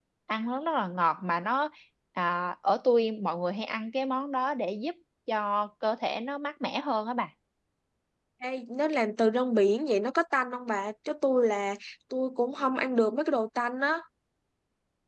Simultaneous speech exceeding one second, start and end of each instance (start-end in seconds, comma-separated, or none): none